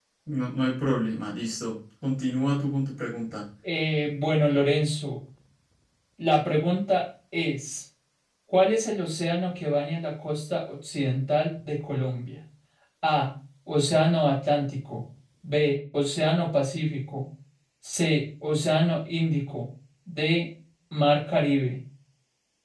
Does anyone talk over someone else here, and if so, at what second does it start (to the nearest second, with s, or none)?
none